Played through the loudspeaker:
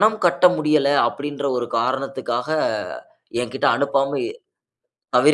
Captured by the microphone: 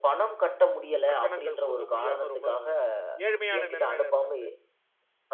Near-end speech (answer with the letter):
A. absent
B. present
B